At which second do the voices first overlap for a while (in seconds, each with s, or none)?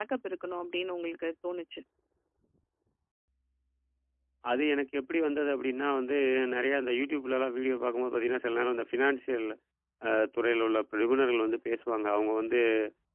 none